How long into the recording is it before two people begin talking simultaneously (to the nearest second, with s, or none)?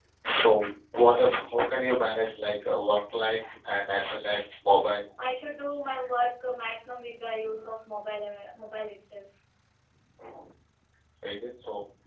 none